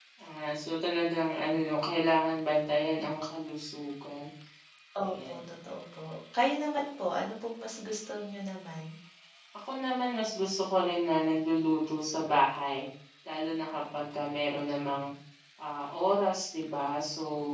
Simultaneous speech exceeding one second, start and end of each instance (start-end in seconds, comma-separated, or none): none